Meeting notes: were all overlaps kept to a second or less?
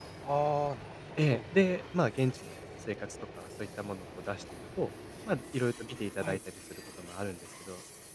Yes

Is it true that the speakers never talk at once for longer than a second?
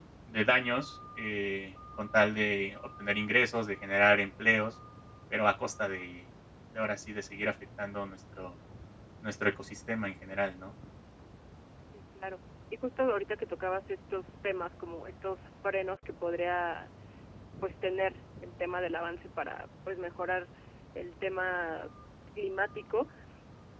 Yes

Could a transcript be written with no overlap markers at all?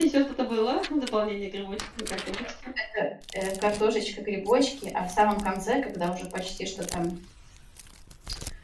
Yes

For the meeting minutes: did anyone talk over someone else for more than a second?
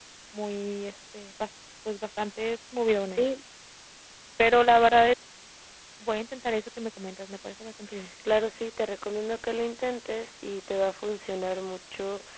No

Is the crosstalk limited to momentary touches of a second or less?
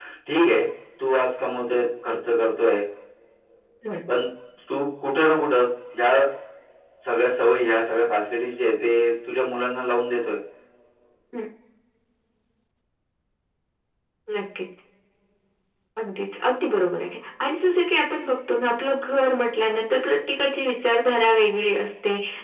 Yes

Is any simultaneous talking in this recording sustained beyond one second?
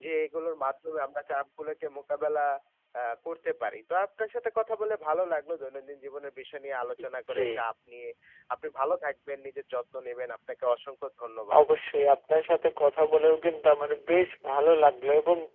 No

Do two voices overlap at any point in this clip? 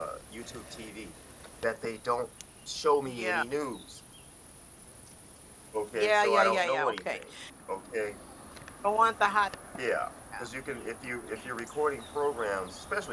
Yes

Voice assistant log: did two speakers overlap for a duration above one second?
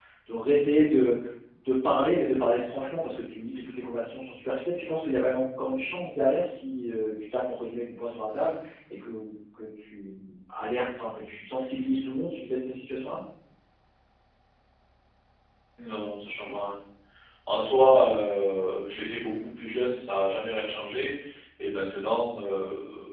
No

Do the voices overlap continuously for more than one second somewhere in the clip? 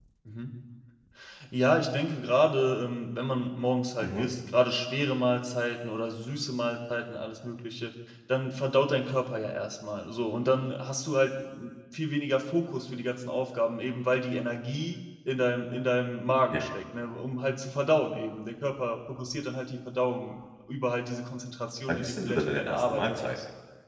Yes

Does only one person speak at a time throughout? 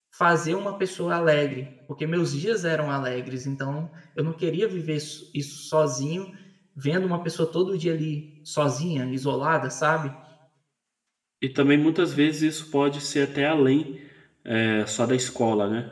Yes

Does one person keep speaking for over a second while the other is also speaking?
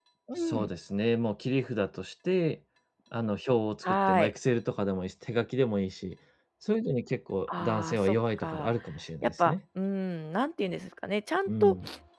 Yes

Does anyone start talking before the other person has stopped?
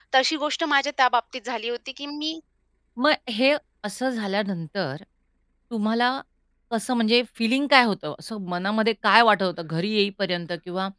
No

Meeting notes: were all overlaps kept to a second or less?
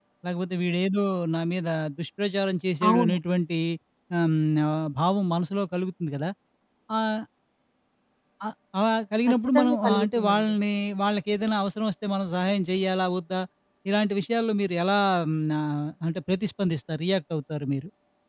No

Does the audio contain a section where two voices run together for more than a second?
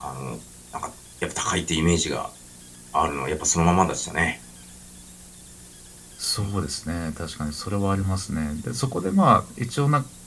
No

